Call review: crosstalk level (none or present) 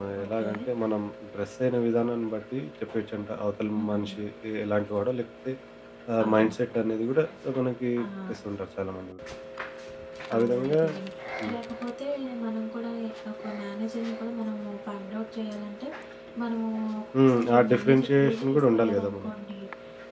present